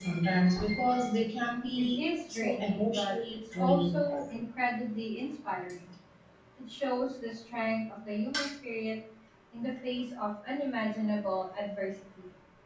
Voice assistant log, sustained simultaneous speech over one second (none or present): present